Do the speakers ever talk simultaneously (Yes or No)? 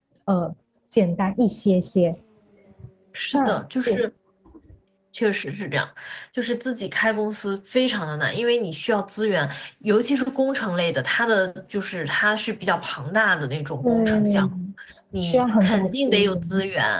Yes